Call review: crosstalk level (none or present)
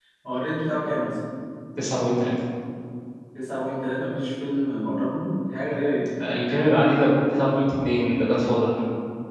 none